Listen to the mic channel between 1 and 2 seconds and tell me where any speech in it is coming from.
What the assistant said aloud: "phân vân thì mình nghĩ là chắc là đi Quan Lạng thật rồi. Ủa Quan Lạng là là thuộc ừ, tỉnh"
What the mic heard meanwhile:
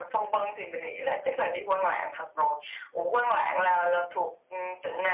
echo only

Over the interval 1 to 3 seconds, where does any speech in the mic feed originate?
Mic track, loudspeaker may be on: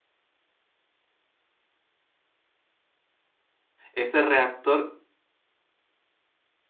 neither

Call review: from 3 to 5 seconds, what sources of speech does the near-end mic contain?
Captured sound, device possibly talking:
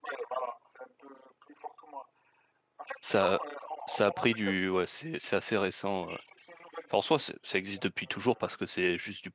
both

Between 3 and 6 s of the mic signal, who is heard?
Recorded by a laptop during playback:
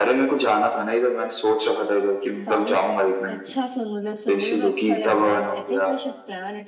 both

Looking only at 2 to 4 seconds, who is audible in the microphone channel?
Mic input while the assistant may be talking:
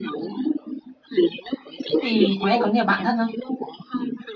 both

